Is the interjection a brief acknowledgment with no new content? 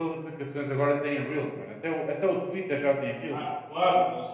No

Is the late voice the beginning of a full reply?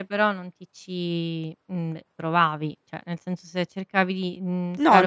Yes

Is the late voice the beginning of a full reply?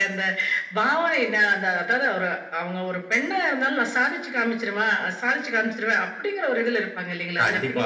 Yes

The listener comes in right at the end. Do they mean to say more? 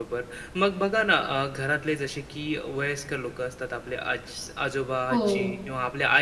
No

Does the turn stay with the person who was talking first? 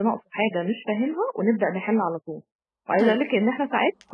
Yes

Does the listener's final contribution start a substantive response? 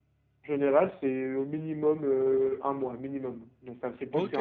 Yes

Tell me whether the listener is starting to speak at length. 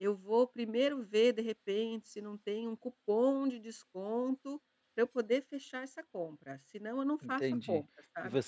Yes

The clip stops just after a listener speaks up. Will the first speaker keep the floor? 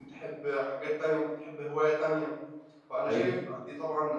Yes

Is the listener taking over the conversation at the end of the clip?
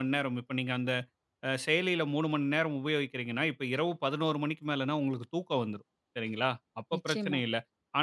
No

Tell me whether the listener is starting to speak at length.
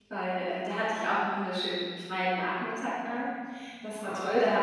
No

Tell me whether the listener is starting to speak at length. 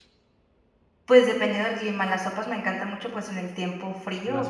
No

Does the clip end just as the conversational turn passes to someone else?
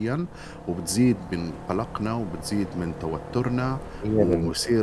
No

